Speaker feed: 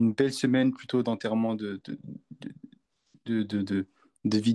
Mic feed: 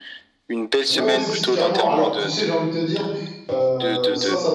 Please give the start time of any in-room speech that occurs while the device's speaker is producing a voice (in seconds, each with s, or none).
0.9 s